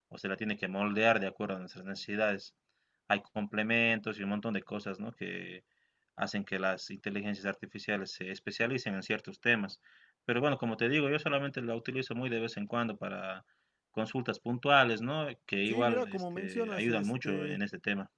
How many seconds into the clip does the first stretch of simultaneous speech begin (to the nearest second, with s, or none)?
16 s